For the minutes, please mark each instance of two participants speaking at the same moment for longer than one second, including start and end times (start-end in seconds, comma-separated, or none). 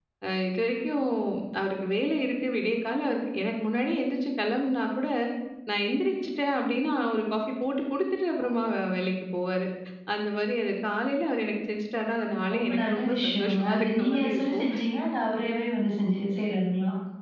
12.5-14.7